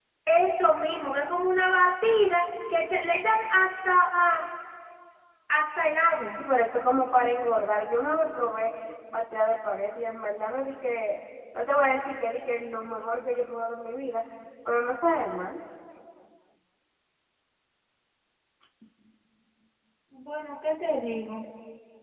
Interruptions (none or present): none